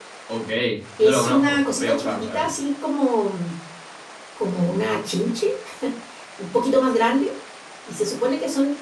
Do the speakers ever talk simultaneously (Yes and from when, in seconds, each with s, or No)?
Yes, from 1.0 s